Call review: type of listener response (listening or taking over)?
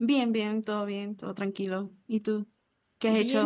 taking over